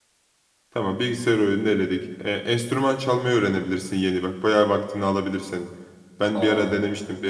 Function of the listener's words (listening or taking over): listening